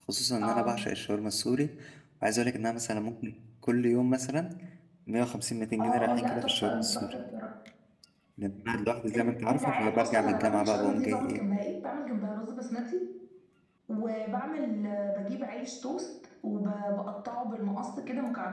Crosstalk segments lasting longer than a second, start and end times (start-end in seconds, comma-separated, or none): 5.8-7.1, 9.2-11.4